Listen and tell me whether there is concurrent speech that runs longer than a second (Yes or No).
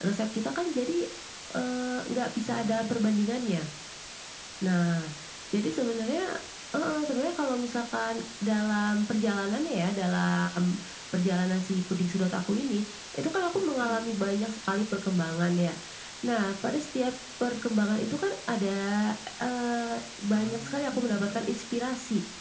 Yes